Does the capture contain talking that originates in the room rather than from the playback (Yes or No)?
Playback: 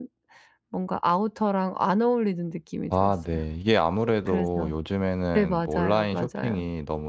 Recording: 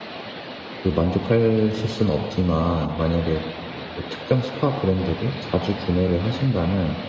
Yes